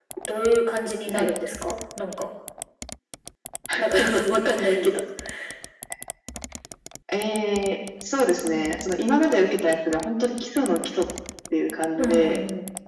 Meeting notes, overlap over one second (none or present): none